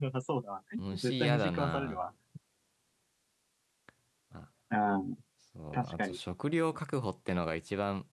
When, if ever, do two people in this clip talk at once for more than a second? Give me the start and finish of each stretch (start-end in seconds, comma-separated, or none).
0.8-2.0